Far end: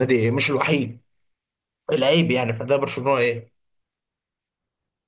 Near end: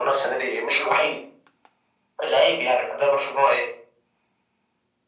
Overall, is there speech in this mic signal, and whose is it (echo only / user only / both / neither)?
echo only